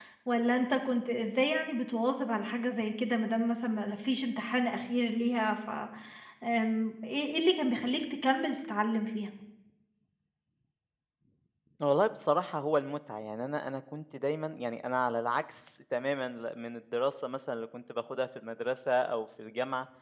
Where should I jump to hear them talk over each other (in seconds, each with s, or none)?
none